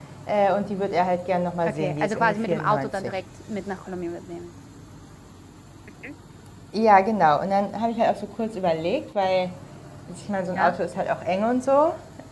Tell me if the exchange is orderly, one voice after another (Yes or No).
No